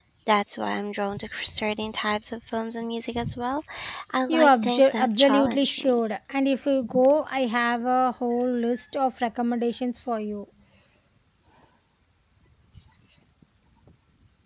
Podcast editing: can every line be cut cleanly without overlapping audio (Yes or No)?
No